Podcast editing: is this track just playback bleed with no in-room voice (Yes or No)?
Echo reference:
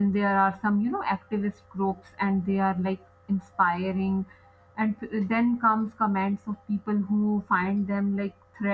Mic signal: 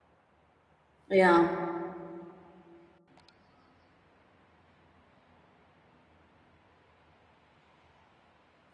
No